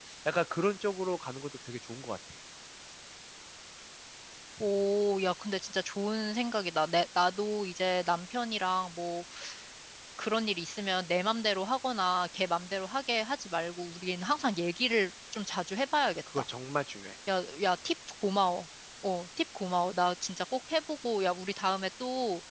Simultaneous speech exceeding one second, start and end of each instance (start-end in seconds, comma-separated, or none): none